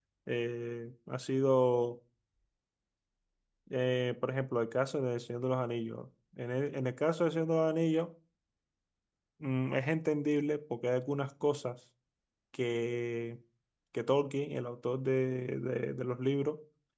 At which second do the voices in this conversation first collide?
none

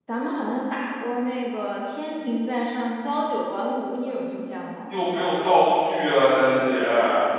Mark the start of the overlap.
none

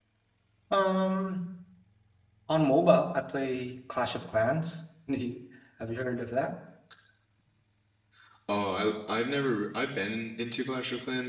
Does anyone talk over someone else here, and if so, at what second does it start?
none

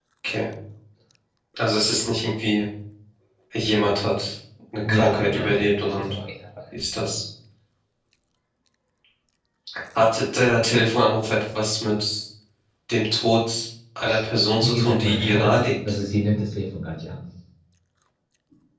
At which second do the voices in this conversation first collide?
4.9 s

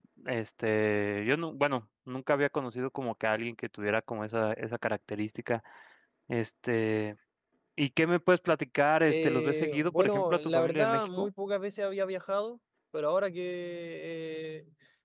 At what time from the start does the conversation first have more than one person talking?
9.1 s

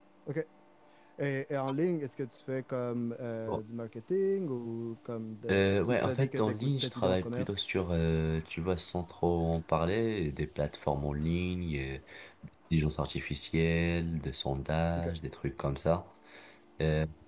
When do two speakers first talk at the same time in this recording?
5.5 s

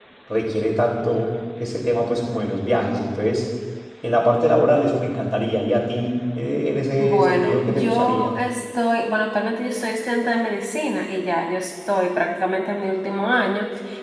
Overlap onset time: 7.0 s

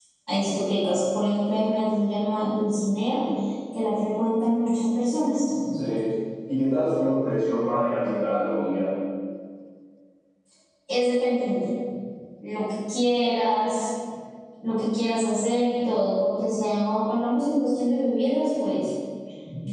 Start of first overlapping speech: none

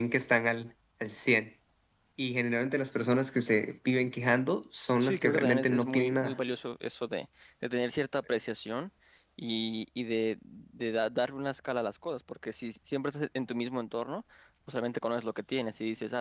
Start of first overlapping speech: 5.0 s

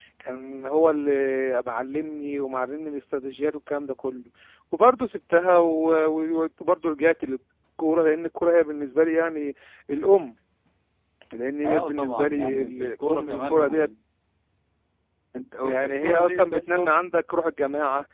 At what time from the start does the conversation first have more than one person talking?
11.6 s

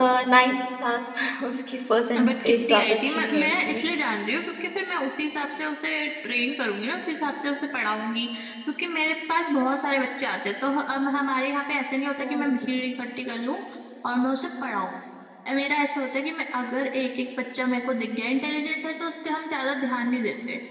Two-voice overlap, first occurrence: 2.2 s

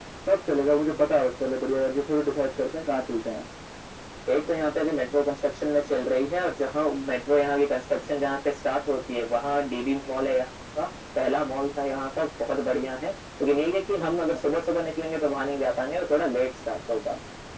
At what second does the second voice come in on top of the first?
none

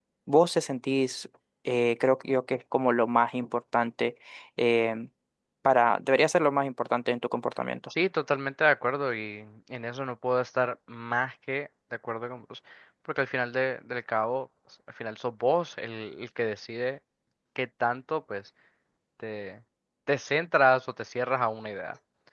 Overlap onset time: none

